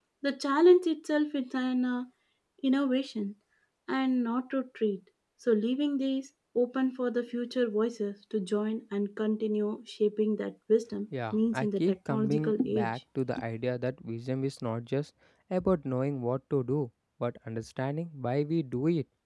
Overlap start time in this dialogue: 11.1 s

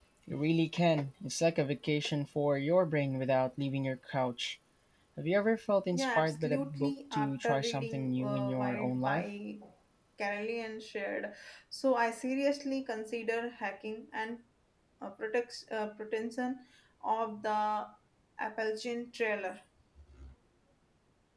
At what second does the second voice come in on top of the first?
5.9 s

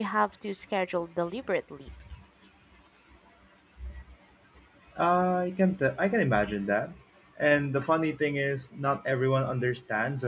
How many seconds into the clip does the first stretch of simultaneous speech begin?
none

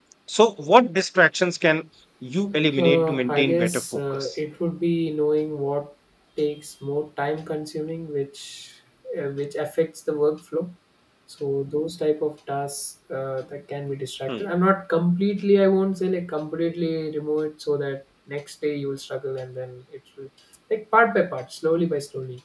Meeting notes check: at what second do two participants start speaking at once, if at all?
2.8 s

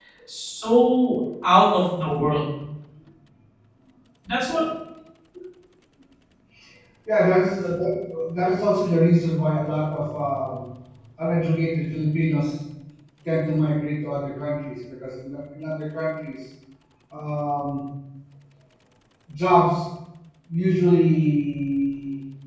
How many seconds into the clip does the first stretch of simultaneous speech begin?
none

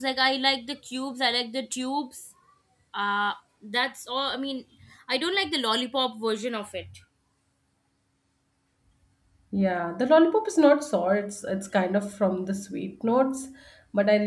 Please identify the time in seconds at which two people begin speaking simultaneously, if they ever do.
none

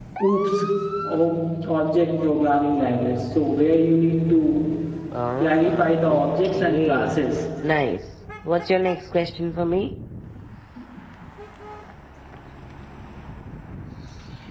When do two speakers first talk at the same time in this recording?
5.4 s

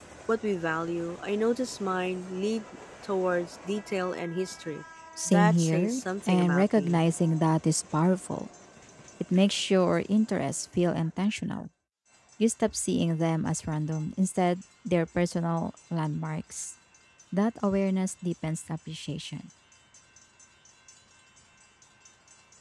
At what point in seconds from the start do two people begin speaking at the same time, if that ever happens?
5.3 s

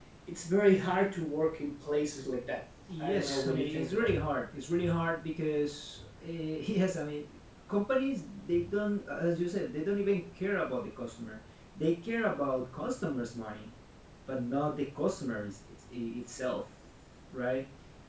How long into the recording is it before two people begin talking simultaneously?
2.9 s

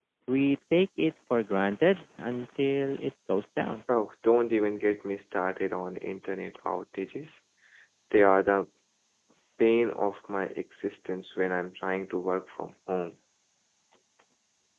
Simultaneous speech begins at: none

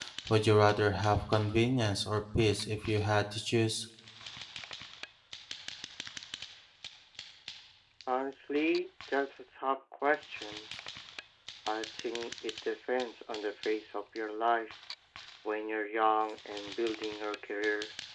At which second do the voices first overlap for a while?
none

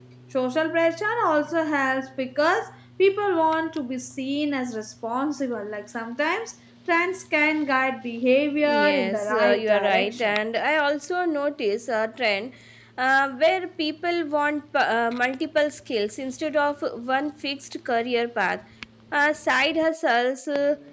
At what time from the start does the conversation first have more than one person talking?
8.6 s

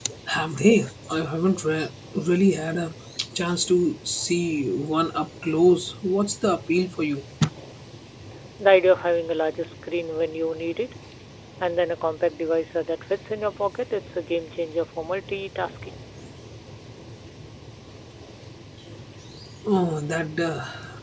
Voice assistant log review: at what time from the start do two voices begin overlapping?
none

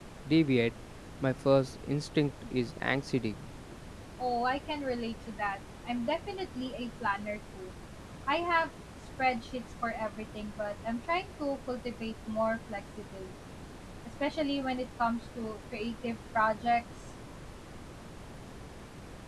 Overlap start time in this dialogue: none

